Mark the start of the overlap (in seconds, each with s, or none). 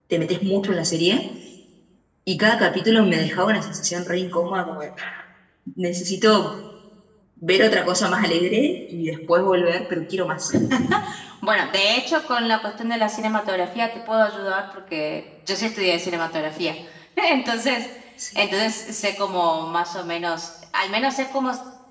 none